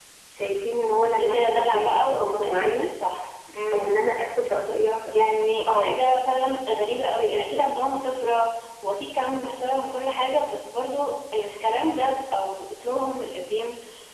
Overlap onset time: 1.1 s

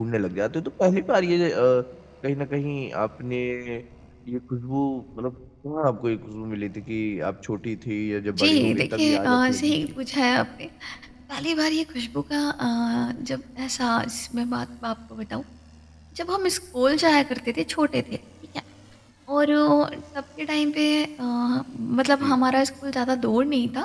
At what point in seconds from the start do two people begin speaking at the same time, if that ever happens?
8.3 s

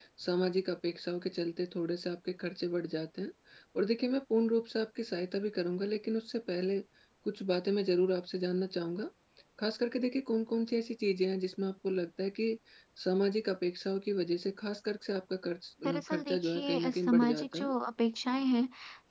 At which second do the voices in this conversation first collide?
15.8 s

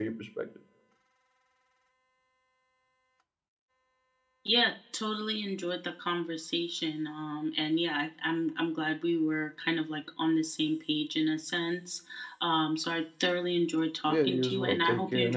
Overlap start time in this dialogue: 14.1 s

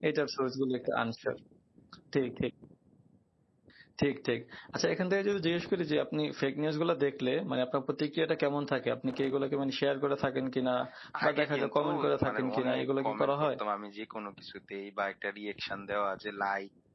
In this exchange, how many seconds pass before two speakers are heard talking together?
11.2 s

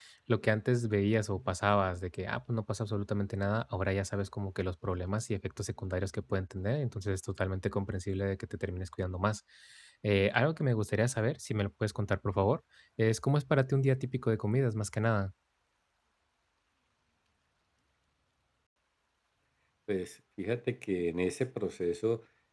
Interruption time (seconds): none

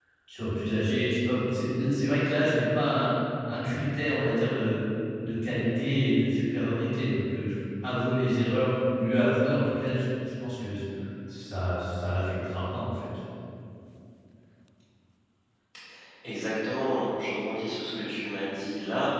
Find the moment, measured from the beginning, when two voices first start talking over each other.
none

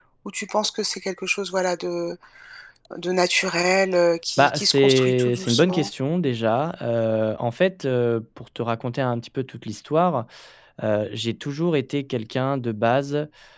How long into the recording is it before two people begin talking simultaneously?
4.4 s

